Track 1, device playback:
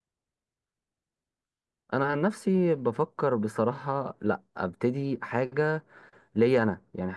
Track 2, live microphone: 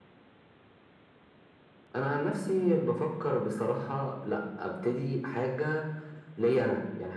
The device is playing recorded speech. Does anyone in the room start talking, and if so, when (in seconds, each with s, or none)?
none